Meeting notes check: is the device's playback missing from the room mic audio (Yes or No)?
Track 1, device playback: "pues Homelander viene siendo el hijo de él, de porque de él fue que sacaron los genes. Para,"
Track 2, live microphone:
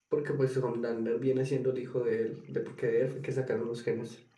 No